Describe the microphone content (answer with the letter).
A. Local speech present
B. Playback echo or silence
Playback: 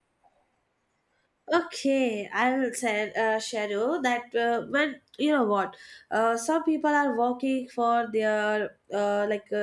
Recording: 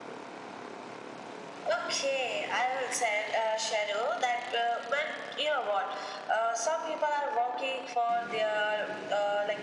B